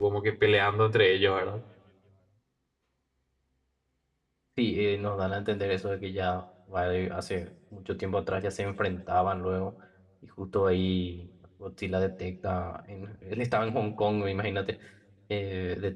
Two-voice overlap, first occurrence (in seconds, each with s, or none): none